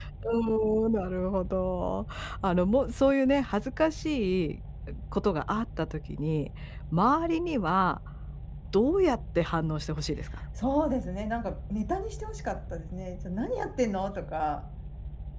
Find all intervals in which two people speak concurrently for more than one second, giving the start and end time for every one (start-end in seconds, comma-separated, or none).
none